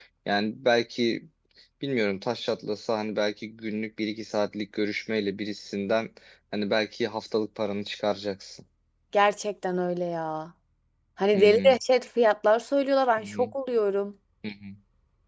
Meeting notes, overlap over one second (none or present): none